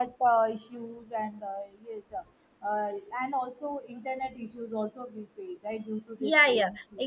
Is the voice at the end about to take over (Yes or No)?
Yes